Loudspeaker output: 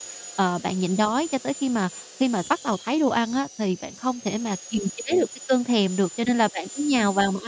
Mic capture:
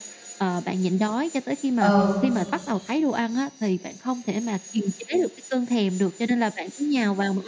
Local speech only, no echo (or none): Ờ.